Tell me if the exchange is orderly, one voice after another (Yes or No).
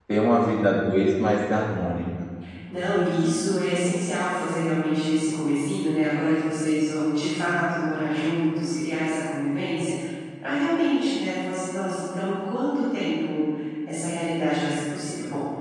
Yes